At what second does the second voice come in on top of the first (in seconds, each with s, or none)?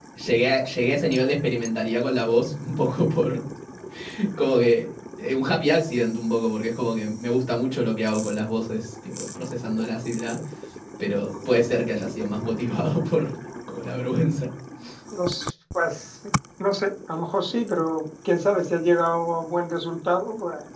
none